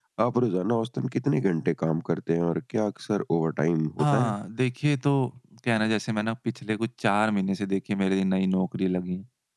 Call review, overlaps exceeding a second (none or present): none